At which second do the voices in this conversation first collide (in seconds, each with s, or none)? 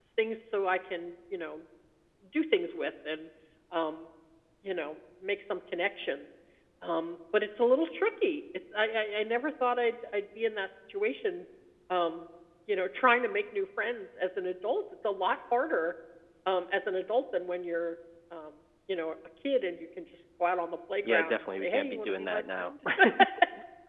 21.0 s